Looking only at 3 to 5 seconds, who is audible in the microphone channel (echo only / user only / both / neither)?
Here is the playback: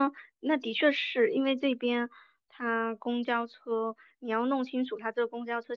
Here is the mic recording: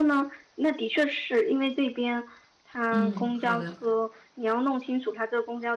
both